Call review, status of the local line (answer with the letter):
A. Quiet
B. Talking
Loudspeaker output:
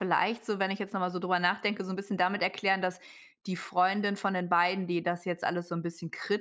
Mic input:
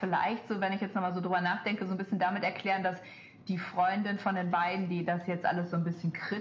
A